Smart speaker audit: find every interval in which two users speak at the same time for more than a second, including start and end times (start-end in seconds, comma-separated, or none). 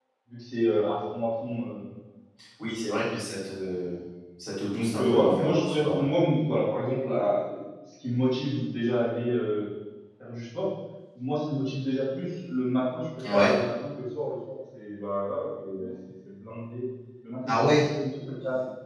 4.6-6.0